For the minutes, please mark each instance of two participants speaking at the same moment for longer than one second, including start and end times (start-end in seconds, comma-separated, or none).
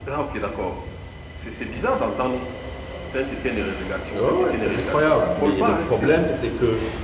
4.1-6.1